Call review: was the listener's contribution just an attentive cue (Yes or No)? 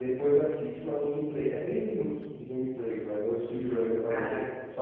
Yes